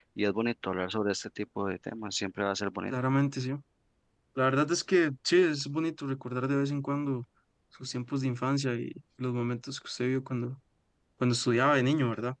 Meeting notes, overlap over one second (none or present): none